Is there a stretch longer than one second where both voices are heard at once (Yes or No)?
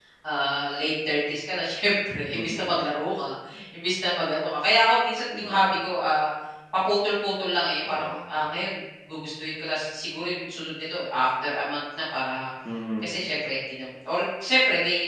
No